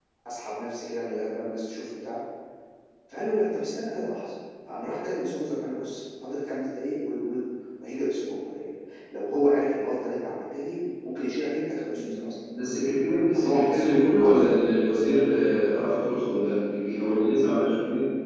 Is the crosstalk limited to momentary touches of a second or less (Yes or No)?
No